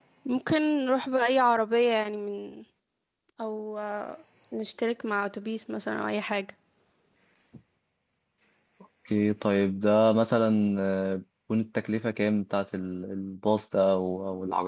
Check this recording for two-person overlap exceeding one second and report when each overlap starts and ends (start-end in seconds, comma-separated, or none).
none